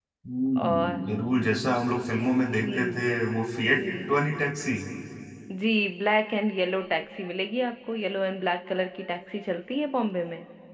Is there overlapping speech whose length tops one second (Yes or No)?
No